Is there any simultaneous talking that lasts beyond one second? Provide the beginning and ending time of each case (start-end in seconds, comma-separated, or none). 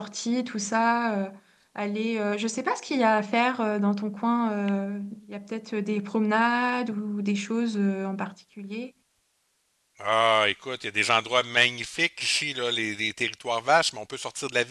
none